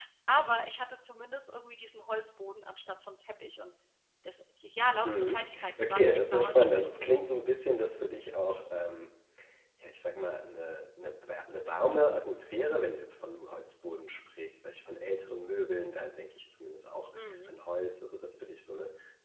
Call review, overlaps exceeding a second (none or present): present